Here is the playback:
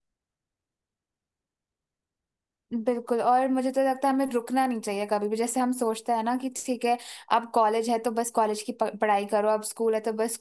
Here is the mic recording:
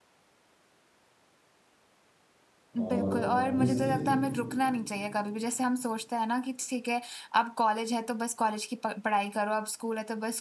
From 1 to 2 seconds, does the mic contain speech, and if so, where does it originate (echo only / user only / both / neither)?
neither